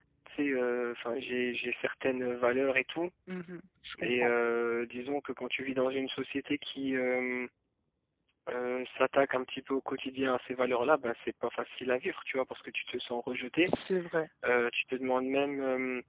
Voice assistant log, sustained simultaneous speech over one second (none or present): none